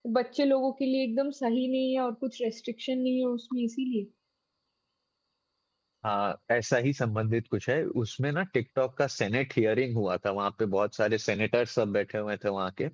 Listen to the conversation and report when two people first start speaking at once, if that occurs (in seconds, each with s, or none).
none